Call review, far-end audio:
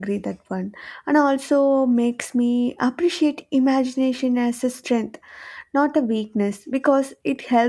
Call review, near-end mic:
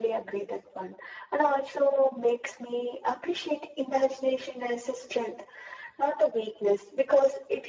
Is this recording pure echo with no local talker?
Yes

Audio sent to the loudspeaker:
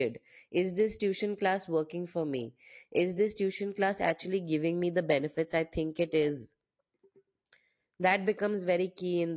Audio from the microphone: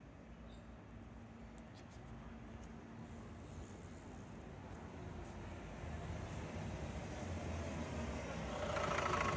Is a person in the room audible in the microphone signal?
No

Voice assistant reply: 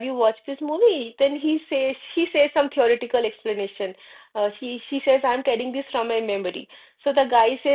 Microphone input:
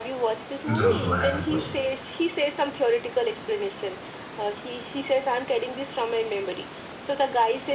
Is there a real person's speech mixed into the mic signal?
Yes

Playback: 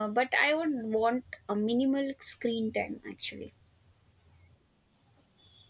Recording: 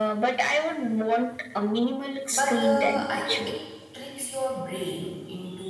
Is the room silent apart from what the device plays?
No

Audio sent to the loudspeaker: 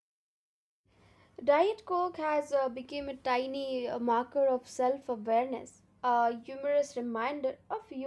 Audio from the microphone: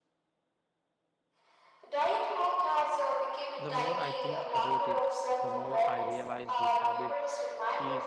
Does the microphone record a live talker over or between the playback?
Yes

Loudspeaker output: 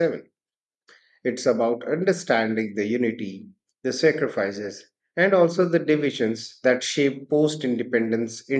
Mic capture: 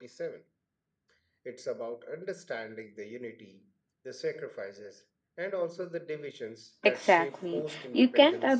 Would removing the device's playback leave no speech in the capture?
No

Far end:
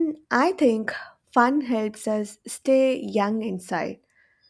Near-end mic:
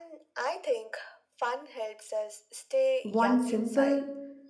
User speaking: Yes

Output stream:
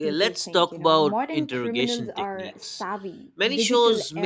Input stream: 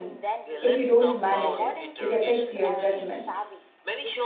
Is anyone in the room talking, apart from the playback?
Yes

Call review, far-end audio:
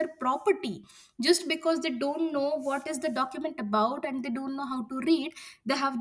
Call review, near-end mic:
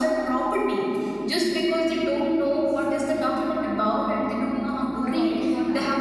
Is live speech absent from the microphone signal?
No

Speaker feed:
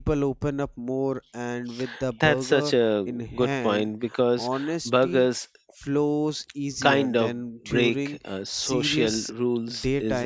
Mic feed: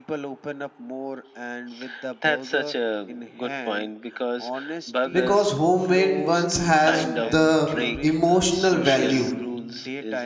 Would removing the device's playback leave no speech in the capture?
No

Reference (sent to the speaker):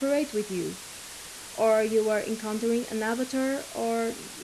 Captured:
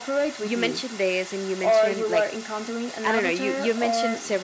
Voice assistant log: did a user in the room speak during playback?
Yes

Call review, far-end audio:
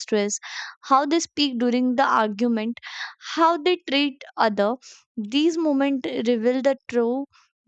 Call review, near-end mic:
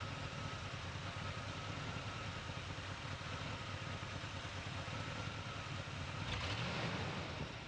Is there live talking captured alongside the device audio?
No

